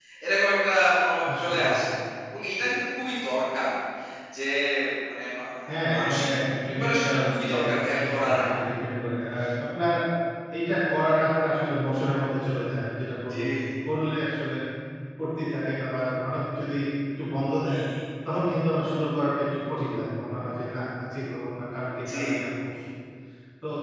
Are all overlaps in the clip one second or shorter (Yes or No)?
No